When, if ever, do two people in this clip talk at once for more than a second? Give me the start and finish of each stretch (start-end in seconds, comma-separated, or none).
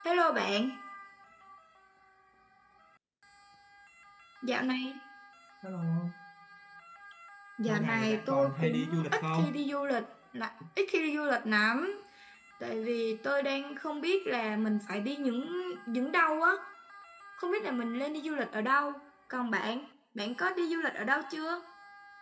7.7-9.5